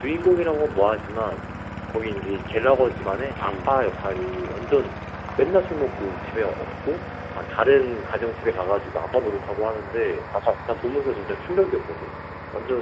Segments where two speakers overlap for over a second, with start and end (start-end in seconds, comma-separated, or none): none